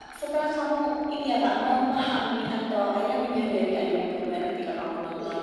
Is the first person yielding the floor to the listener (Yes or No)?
No